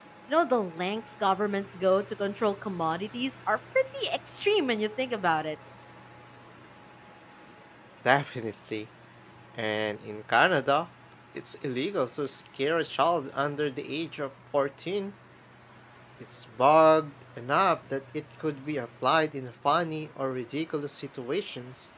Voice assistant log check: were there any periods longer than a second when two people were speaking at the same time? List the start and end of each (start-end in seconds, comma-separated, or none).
none